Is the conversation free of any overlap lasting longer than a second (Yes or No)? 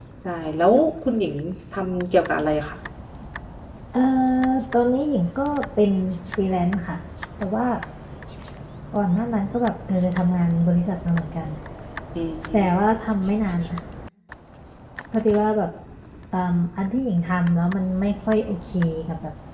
Yes